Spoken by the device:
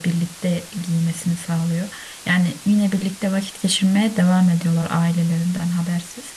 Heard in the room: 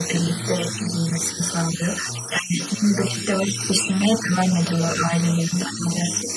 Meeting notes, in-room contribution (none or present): present